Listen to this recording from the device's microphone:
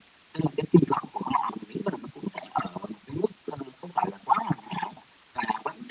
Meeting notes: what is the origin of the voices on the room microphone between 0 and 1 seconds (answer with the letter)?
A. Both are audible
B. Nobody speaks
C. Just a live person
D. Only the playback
D